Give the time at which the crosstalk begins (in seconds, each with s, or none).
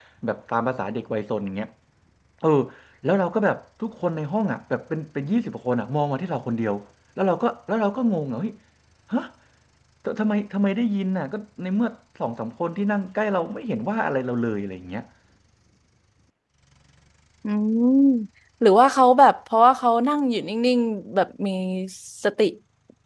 none